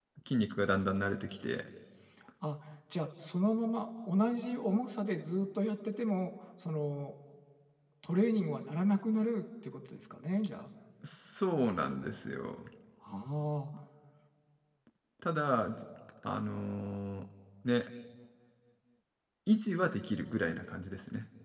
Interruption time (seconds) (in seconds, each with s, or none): none